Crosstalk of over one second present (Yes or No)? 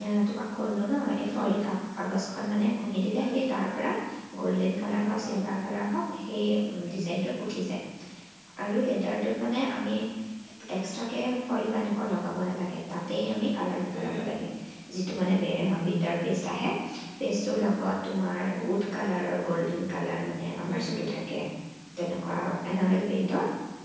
No